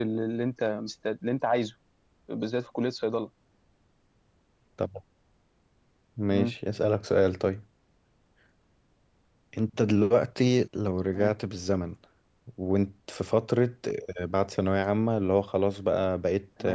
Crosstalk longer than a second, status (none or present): none